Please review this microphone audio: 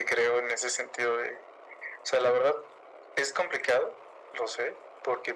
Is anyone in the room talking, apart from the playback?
No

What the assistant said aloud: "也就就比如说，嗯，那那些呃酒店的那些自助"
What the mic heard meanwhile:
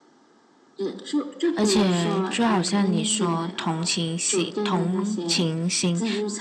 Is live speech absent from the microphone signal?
No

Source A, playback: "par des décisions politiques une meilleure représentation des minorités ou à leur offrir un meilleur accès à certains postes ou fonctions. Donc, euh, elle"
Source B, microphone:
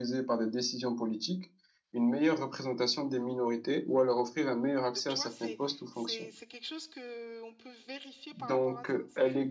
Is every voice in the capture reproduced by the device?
No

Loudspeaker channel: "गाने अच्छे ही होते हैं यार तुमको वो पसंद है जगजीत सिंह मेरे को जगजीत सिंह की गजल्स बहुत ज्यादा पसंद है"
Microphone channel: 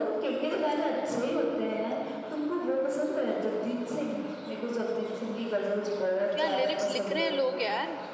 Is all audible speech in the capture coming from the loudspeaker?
No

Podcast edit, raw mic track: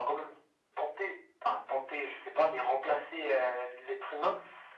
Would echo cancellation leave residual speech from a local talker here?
No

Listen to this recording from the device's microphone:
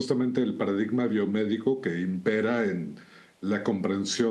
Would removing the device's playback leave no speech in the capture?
Yes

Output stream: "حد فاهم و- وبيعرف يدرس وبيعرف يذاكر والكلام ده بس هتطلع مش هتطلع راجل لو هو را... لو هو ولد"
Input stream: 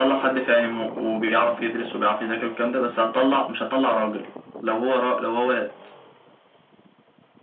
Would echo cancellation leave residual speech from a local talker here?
No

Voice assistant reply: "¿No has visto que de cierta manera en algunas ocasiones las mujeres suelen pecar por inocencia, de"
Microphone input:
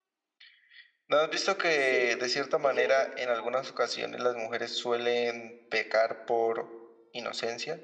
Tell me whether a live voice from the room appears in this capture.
Yes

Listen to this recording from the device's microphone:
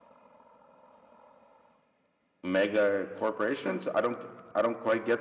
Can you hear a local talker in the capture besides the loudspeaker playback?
Yes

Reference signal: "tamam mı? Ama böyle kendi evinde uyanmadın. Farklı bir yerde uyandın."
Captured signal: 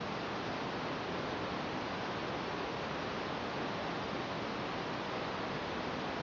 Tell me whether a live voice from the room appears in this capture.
No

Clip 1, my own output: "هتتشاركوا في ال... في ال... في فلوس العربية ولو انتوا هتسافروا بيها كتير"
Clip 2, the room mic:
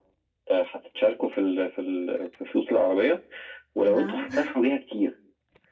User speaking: Yes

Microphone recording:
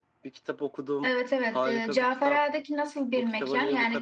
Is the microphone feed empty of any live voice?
Yes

